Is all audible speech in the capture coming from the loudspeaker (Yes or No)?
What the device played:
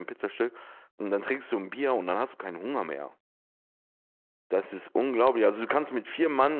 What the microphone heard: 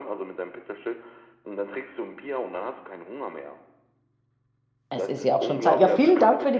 No